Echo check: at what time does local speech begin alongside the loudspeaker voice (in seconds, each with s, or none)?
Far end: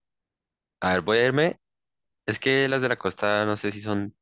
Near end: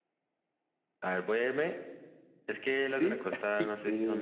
2.9 s